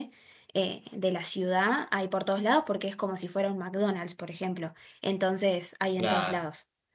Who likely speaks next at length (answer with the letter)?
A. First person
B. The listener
B